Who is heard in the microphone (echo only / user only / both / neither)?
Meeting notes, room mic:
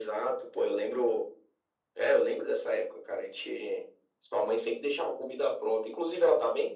echo only